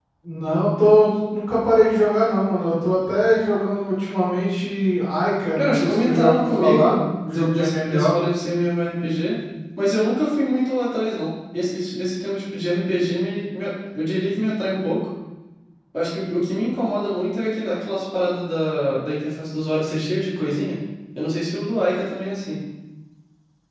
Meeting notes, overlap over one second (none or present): present